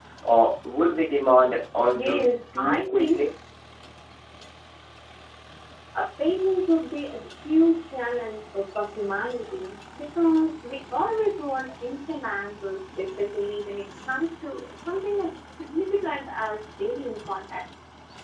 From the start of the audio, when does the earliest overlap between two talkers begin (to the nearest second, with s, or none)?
2 s